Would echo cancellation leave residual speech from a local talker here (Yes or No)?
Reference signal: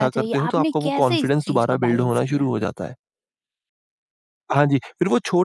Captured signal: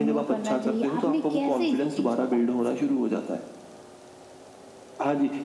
No